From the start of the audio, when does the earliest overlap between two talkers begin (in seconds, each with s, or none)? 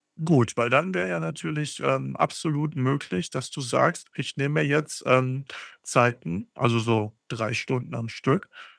none